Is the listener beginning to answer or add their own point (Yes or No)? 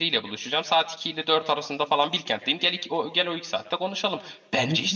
Yes